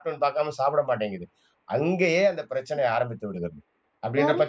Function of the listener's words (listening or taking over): taking over